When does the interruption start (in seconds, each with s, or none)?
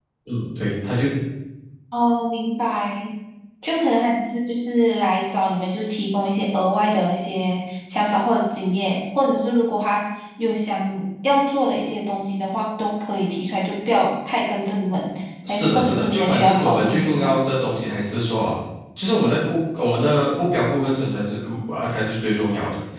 15.4 s